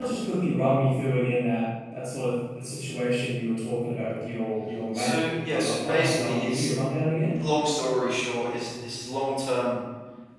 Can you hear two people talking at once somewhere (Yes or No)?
Yes